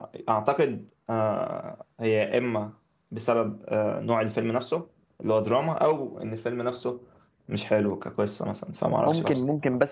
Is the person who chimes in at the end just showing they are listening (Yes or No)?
No